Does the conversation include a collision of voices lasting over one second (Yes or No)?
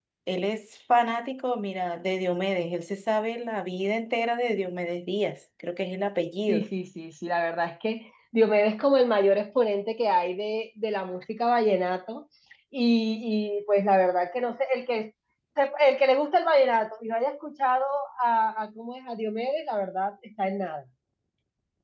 No